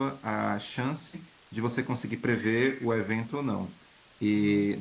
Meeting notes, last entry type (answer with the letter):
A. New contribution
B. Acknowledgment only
B